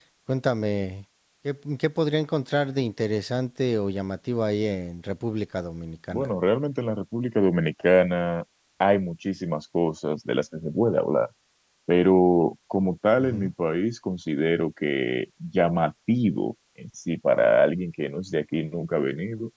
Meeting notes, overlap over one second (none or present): none